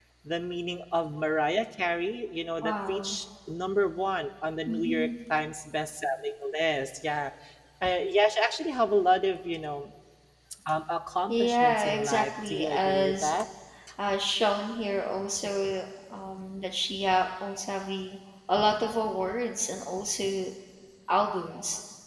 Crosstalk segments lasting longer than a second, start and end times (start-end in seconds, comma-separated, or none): 11.3-13.3